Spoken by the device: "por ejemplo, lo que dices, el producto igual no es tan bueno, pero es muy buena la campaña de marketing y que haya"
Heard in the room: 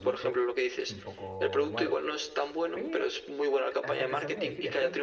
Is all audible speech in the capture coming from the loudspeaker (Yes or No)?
No